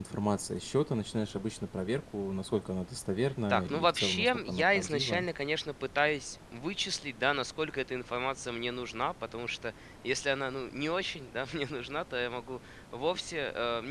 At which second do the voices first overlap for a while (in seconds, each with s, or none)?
3.5 s